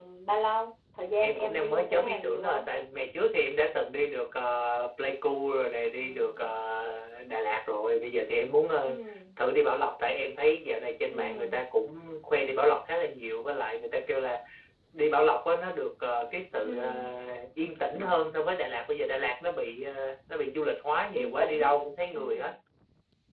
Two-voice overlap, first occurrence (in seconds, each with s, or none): 1.2 s